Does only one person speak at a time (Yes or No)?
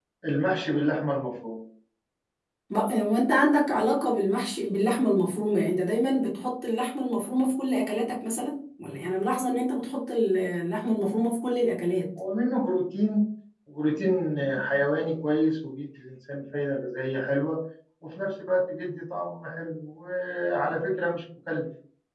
Yes